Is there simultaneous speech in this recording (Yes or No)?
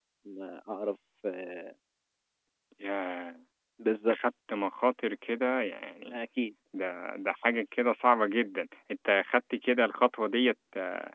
No